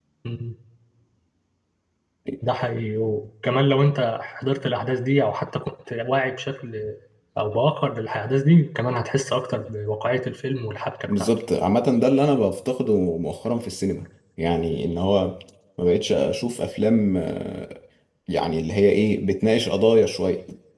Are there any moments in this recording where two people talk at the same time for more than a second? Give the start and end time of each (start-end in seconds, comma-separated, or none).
none